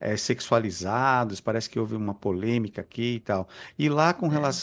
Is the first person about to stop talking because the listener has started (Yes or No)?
No